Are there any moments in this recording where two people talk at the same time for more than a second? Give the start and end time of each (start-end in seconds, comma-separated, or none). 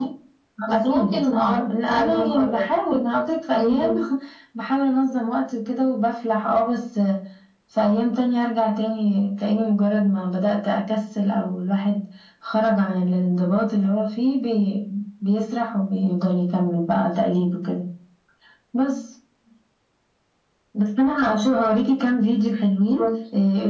0.7-2.6